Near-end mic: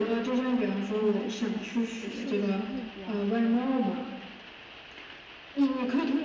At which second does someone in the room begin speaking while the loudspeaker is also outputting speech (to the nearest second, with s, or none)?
1 s